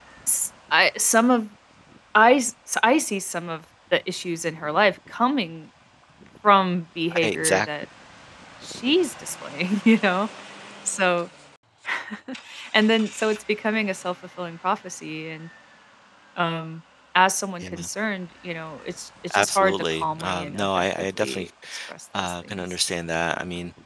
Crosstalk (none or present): present